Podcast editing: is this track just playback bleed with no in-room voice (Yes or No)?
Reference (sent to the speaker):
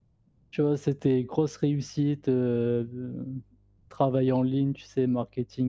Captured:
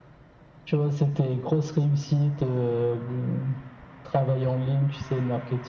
Yes